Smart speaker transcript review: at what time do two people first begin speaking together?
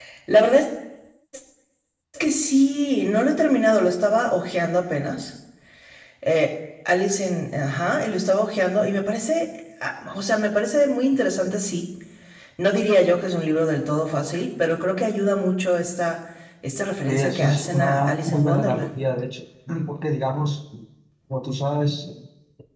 17 s

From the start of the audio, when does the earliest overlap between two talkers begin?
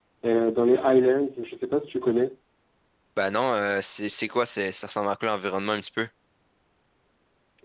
none

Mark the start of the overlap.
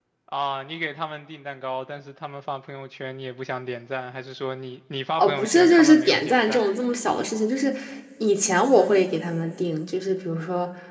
5 s

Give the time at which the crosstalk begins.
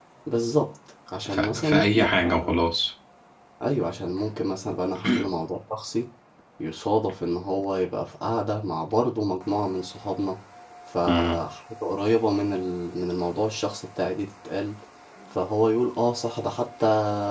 1 s

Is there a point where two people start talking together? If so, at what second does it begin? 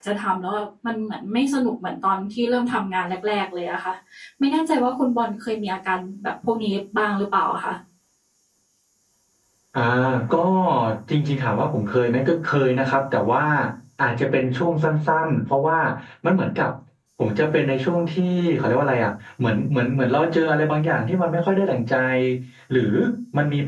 none

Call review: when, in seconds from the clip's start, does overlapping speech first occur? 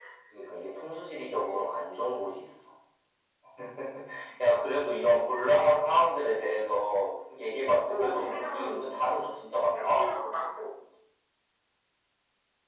8 s

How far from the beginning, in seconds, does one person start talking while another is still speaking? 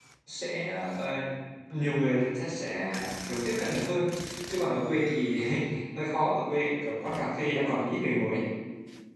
none

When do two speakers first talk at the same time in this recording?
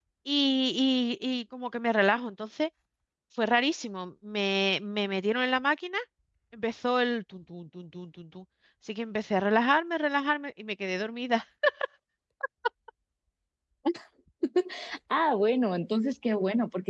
none

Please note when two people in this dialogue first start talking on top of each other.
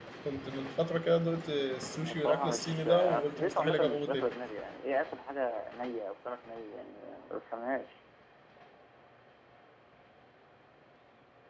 2 s

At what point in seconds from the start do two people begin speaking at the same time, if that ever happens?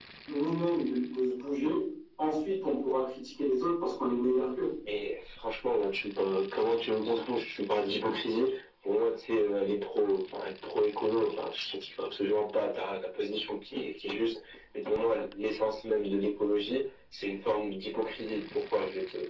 none

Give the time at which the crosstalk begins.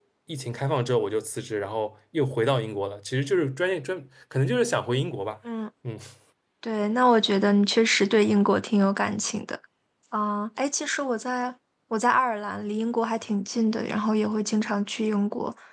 none

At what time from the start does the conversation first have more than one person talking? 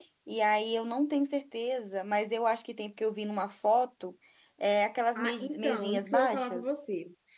5 s

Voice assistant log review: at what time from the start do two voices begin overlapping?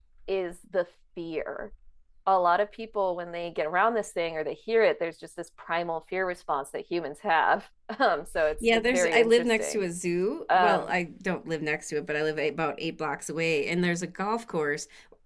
9 s

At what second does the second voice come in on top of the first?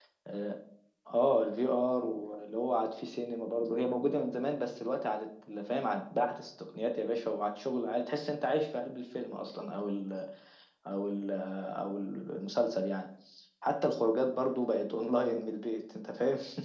none

